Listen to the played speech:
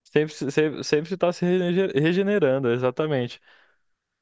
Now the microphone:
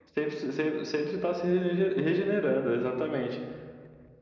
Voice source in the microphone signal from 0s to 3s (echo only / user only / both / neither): echo only